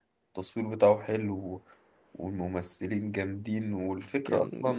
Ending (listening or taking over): listening